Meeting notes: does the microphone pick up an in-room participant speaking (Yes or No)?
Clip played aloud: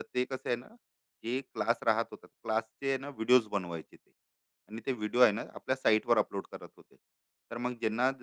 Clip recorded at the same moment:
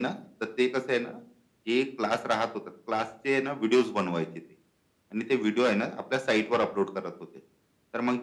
No